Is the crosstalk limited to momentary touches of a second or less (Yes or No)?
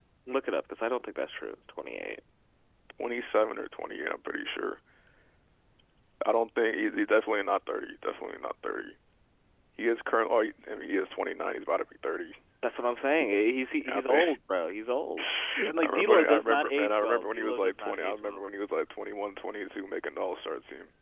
No